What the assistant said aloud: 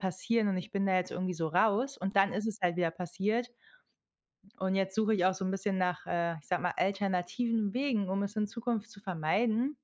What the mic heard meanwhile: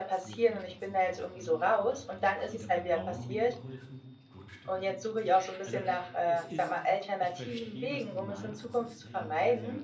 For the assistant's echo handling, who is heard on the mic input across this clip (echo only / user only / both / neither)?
both